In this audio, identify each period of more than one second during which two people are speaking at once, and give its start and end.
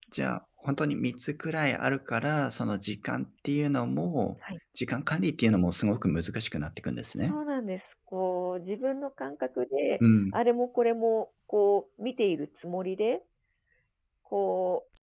none

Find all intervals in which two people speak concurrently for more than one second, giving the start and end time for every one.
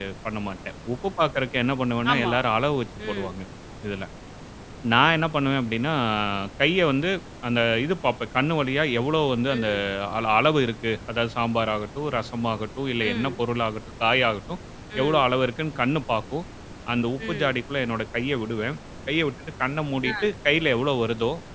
none

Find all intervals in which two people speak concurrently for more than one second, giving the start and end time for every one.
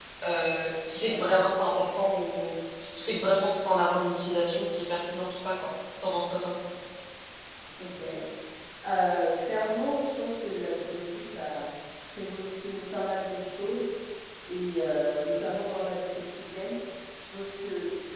none

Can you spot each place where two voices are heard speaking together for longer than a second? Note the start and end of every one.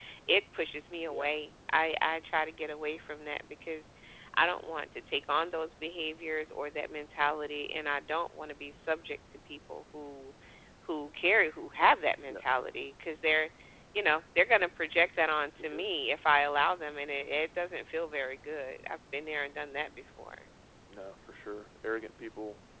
none

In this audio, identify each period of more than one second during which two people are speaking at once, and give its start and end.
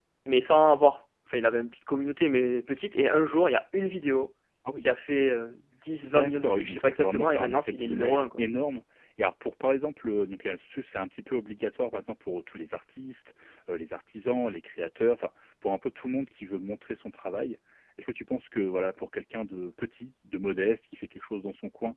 6.0-8.4

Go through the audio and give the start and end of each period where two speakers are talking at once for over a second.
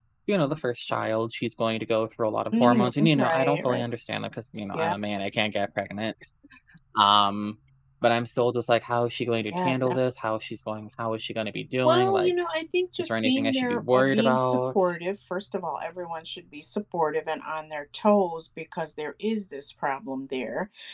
2.5-3.8, 13.0-14.8

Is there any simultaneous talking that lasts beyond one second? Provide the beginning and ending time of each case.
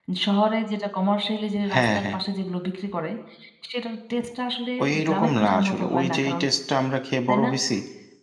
4.8-6.4

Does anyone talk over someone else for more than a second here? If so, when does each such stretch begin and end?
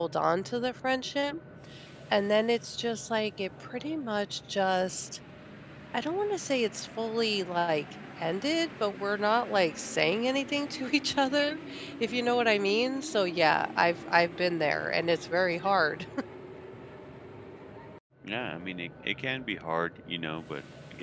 none

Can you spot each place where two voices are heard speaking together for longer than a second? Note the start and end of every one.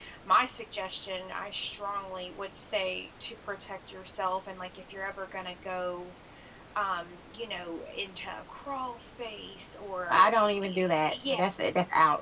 10.1-11.4

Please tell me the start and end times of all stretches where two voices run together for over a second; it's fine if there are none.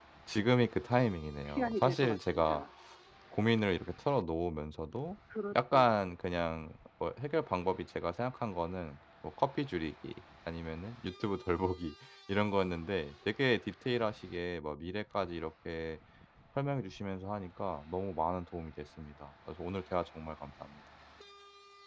1.4-2.6

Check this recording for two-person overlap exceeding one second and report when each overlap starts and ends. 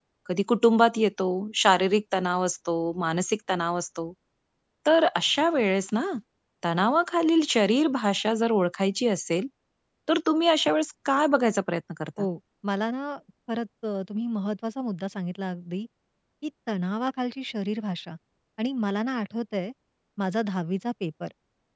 none

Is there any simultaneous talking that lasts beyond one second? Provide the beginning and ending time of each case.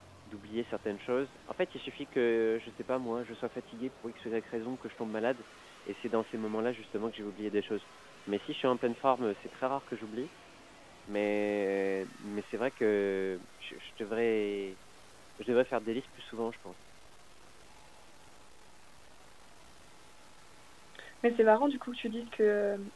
none

